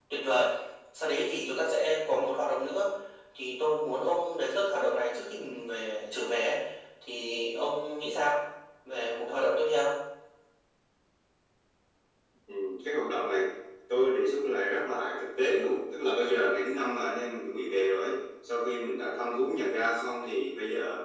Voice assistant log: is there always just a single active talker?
Yes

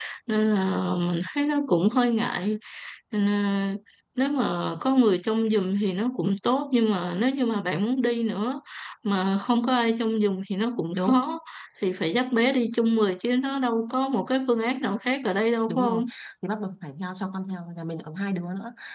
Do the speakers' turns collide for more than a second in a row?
No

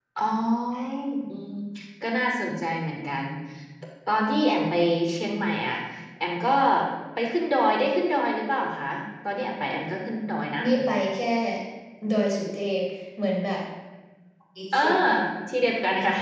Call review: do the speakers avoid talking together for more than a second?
Yes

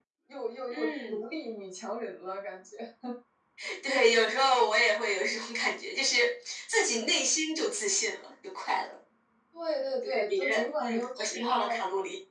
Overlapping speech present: Yes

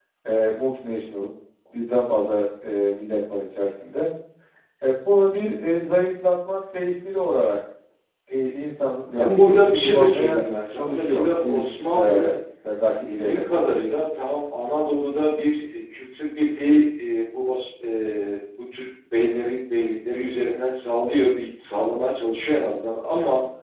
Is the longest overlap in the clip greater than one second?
Yes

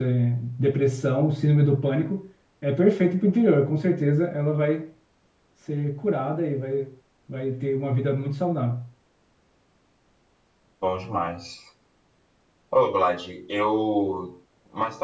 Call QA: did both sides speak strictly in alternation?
Yes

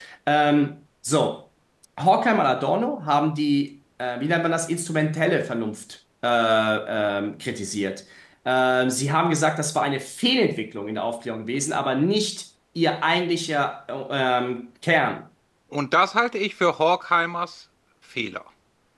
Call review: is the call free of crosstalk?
Yes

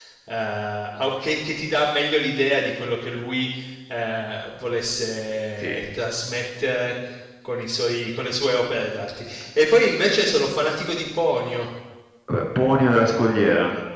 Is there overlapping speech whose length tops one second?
No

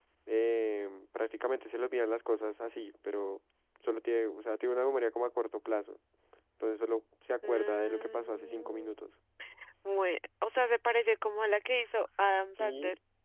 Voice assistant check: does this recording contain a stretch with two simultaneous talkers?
Yes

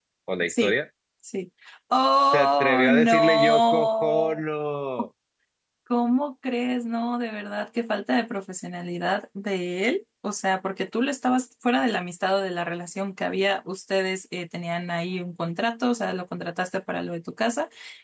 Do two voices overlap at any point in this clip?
Yes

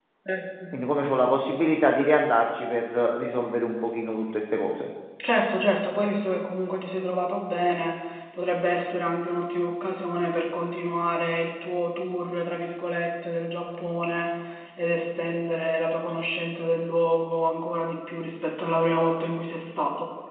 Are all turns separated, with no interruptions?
Yes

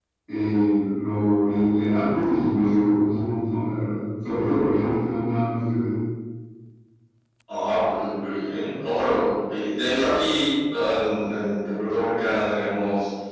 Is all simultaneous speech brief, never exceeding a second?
Yes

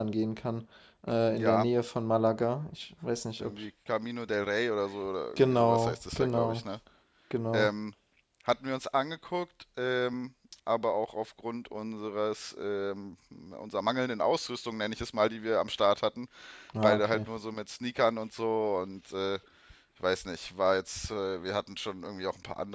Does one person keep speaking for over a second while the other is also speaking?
Yes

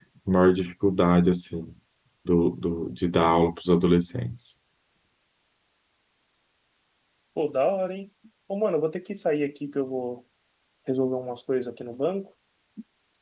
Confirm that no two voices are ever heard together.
Yes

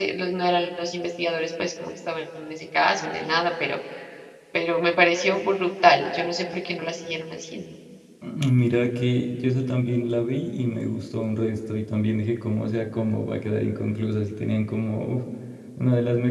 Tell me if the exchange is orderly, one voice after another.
Yes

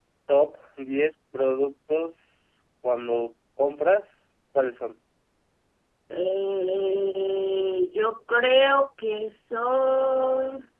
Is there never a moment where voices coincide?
Yes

